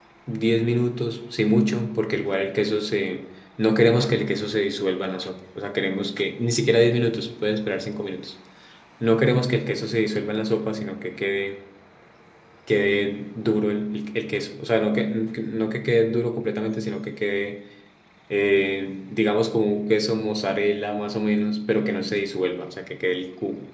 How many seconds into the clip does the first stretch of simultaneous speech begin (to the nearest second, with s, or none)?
none